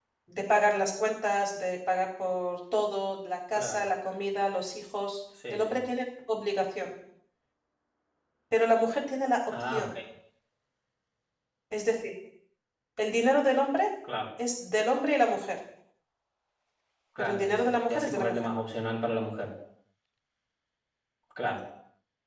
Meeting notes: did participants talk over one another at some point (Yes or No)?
Yes